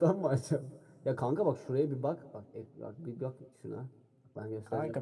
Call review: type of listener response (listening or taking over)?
taking over